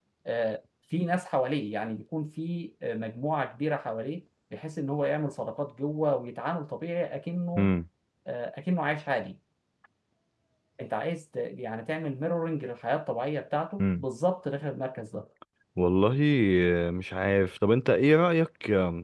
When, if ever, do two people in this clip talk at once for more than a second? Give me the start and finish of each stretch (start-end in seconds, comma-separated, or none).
none